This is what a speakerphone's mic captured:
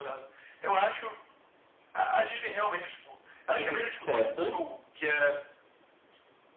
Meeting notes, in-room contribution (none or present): present